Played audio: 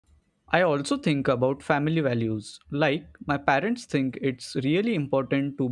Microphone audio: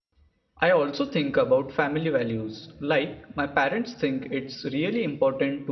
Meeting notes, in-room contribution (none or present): none